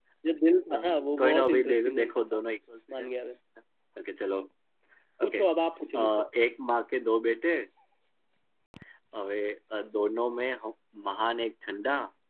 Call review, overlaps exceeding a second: present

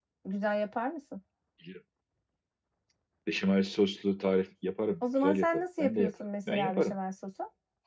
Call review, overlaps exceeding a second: present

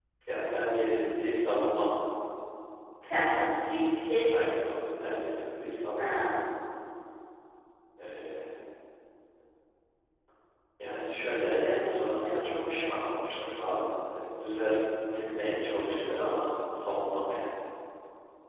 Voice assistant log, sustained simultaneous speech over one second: present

